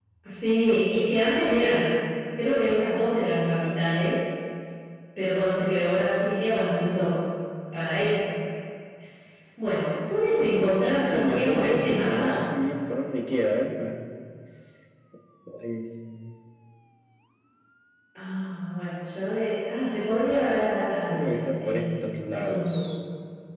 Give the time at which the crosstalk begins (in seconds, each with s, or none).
10.4 s